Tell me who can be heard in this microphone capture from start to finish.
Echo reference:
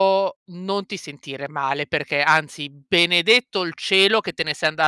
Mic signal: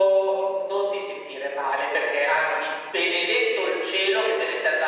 echo only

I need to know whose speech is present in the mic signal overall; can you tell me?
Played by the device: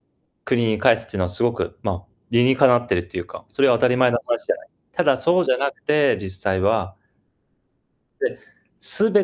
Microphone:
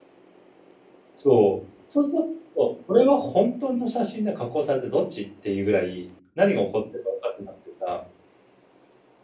user only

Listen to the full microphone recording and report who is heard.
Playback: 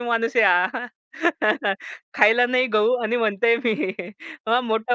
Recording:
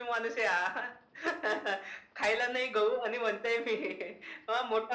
echo only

